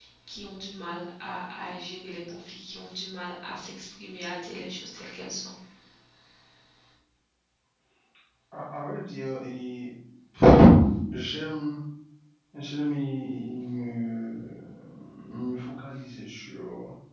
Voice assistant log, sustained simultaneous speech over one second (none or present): none